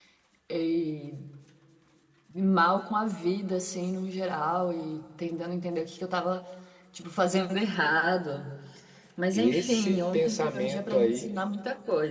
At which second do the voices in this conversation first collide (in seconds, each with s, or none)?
9.3 s